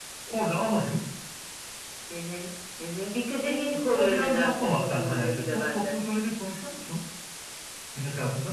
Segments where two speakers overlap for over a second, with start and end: 3.7-6.0

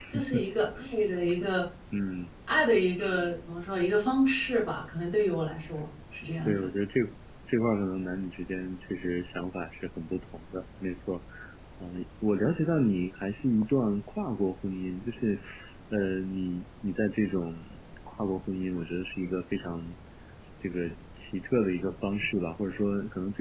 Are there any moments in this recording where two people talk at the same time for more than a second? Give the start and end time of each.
none

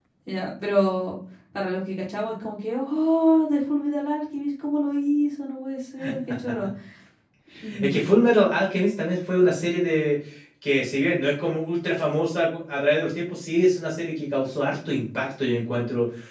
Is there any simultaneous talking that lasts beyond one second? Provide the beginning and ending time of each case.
none

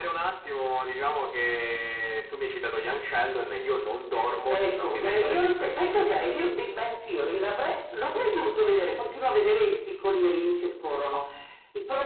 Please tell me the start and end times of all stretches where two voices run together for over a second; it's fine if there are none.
4.5-6.2

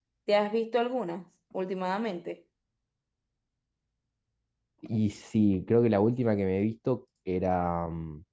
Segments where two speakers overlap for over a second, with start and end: none

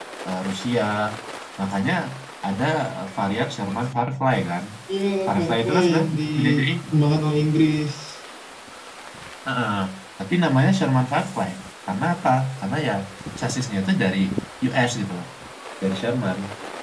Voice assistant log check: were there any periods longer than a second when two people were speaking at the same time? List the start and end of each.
5.3-6.7

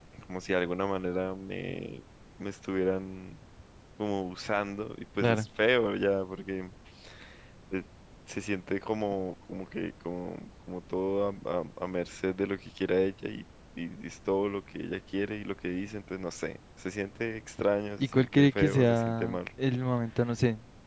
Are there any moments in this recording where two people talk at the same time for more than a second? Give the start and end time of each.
18.0-19.4

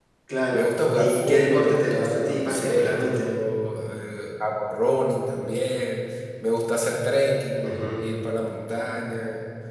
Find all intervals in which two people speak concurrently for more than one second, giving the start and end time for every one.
0.5-3.3

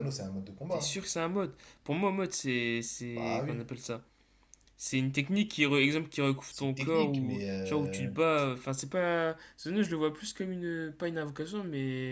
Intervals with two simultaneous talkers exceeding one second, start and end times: 6.5-8.1

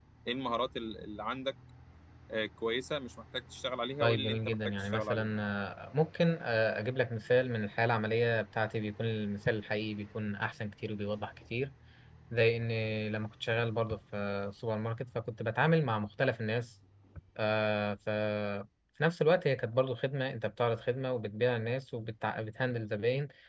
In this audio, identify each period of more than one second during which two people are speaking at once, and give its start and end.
4.0-5.4

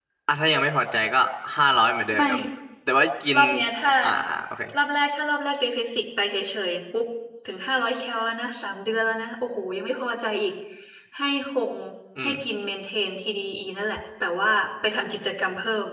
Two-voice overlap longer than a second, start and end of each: none

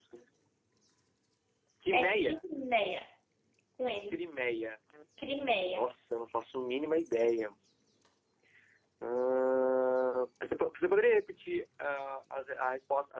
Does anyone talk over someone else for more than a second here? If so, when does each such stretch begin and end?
none

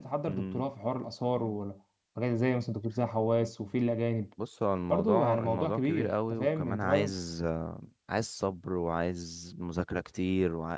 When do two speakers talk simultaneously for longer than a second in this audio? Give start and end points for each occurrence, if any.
4.9-7.1

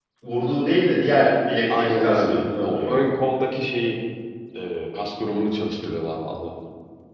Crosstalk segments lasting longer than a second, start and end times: 1.8-3.0

